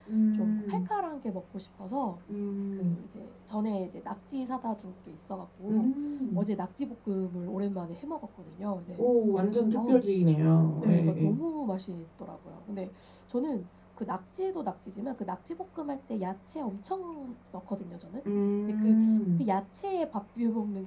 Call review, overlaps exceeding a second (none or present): none